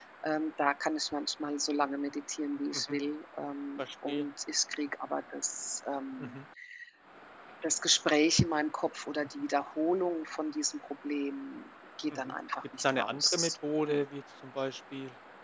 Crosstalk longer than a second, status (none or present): present